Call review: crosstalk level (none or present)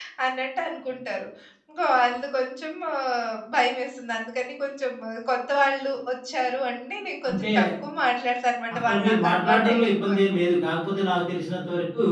present